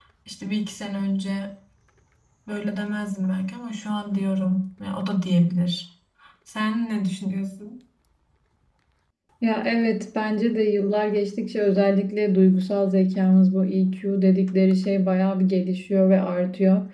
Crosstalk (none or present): none